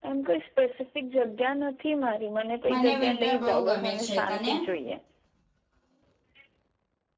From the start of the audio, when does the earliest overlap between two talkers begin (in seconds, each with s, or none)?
2.6 s